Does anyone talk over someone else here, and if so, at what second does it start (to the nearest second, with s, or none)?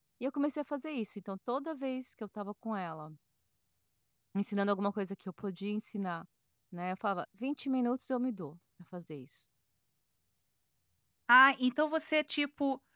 none